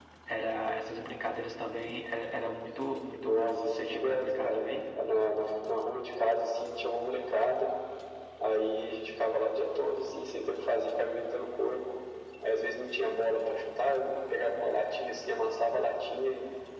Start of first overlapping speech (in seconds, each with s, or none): 3.2 s